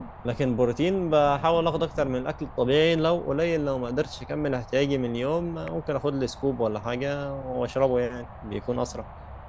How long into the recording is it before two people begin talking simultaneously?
none

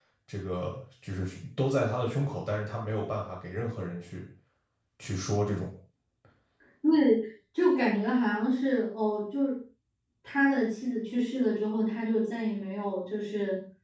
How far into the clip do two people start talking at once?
none

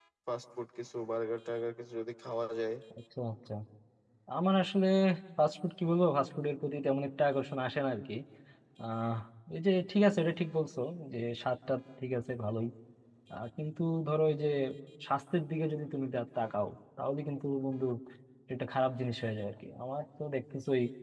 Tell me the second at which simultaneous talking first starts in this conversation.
none

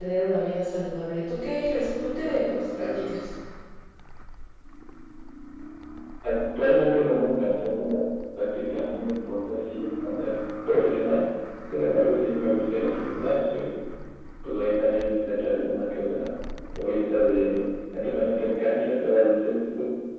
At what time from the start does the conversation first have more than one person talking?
none

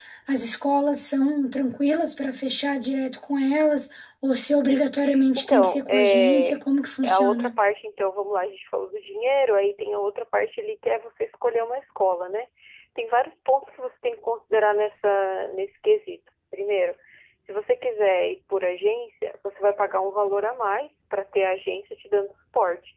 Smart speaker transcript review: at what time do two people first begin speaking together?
5.3 s

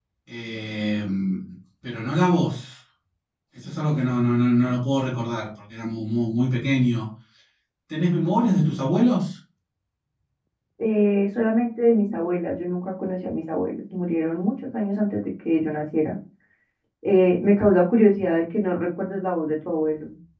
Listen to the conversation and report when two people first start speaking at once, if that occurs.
none

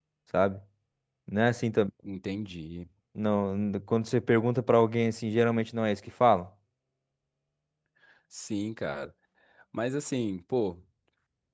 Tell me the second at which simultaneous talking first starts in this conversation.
none

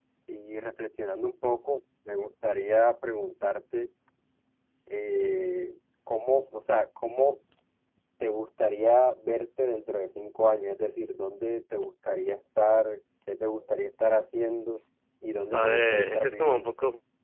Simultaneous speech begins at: 15.5 s

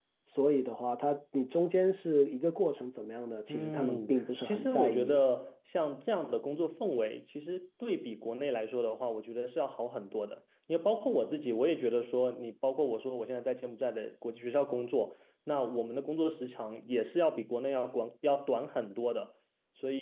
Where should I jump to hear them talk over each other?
3.5 s

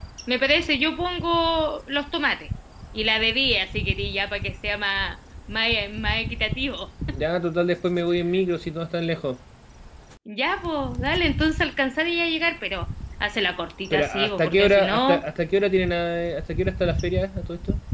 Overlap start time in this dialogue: 13.9 s

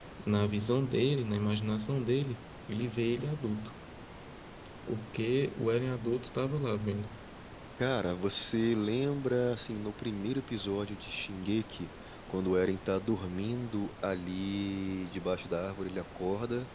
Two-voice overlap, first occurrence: none

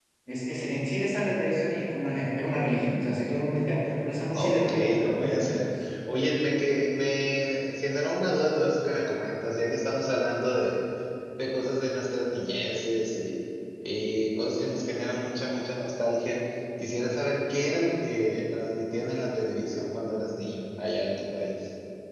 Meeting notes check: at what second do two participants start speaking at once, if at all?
4.3 s

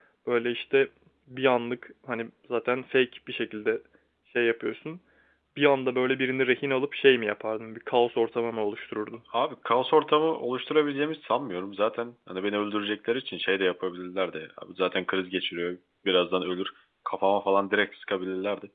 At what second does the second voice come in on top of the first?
none

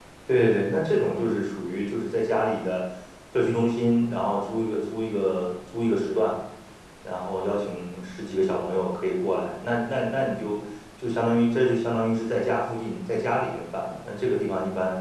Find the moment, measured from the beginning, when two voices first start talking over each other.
none

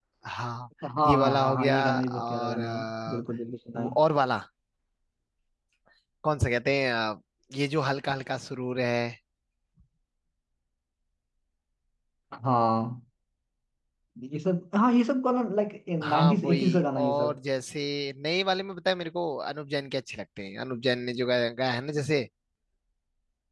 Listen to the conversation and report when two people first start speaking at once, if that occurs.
1.1 s

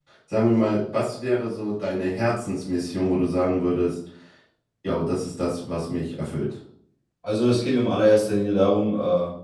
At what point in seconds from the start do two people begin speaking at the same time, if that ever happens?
none

